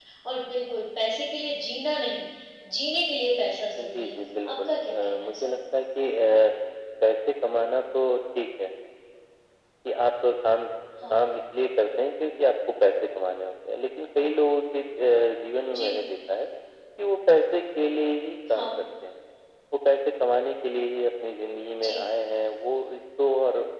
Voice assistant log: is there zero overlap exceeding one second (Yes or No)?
No